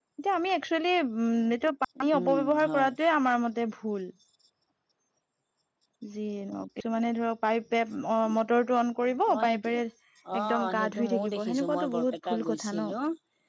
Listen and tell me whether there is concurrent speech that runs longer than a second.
Yes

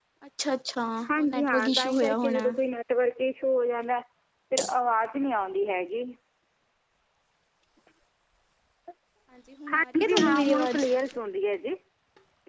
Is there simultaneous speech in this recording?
Yes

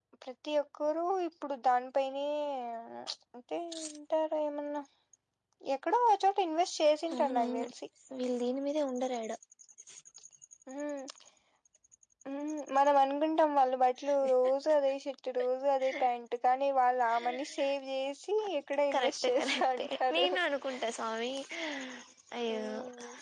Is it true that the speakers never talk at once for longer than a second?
No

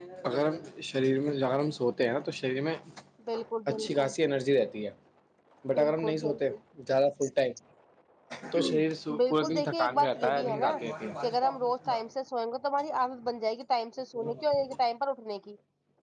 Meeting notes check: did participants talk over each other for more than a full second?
Yes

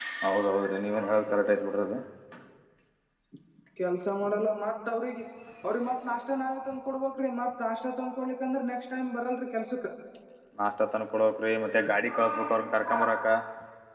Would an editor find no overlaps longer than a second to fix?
Yes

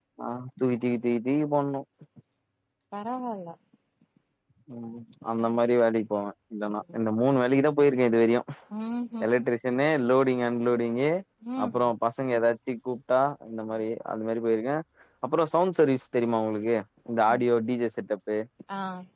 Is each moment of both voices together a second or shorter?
Yes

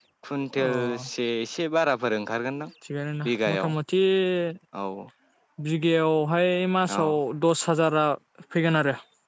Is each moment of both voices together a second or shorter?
Yes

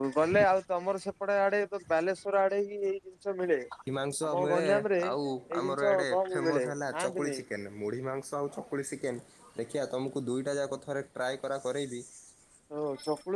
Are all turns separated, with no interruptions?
No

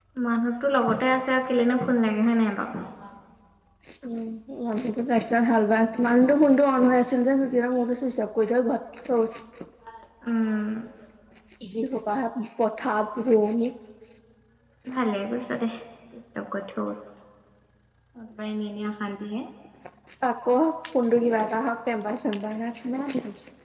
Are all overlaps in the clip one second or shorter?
Yes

